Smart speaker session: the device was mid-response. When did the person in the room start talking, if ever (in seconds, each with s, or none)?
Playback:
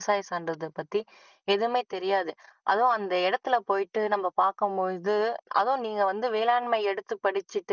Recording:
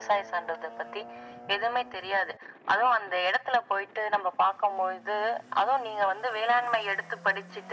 none